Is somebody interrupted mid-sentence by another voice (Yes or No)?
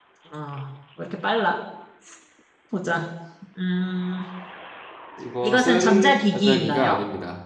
Yes